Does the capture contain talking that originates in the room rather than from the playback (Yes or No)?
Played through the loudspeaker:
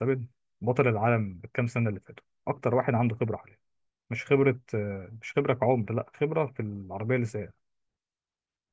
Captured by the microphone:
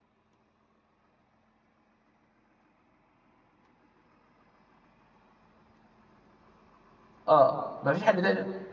Yes